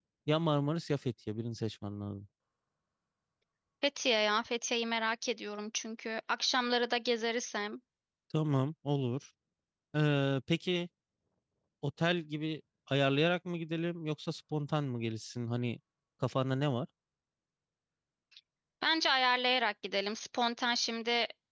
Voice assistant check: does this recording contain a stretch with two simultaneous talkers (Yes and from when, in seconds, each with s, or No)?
No